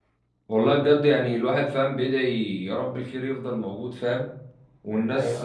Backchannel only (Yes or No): Yes